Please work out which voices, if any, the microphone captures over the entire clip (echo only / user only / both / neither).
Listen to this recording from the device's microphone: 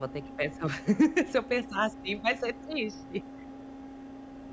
user only